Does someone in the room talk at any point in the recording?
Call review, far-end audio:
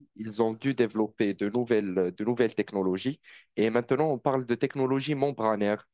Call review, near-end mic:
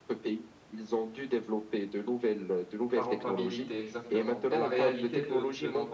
Yes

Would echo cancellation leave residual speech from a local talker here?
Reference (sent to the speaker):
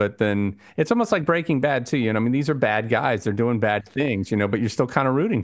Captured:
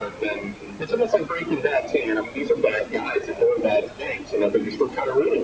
No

